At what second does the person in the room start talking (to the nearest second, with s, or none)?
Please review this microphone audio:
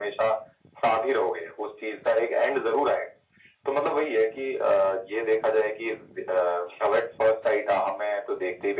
none